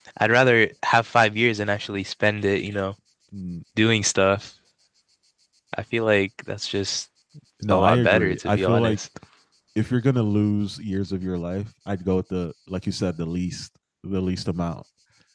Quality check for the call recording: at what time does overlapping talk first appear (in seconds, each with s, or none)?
7.7 s